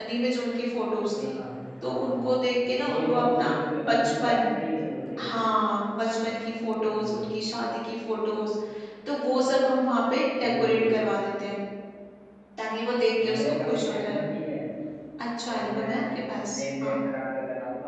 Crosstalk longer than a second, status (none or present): present